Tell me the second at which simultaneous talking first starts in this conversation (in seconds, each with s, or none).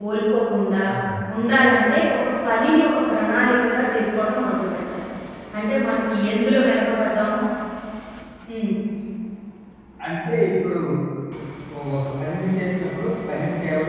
none